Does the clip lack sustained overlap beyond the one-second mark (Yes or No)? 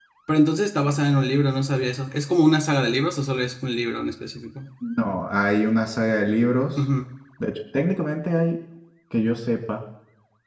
Yes